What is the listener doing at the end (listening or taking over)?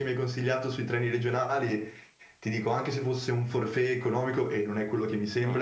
listening